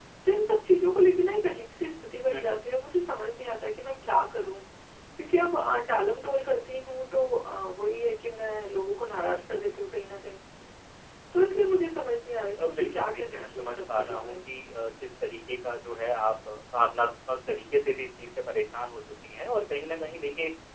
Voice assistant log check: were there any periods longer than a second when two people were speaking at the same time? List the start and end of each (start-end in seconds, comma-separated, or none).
12.6-14.4